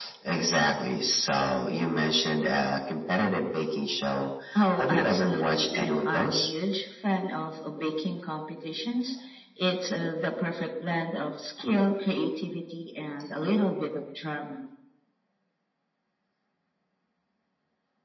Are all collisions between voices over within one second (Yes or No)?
No